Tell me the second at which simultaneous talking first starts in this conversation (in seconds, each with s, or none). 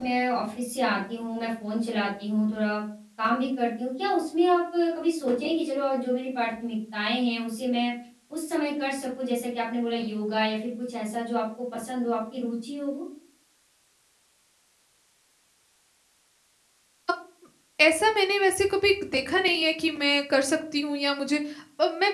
none